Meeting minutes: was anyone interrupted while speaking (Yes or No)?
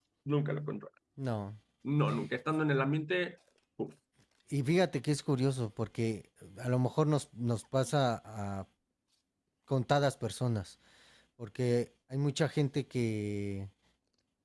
No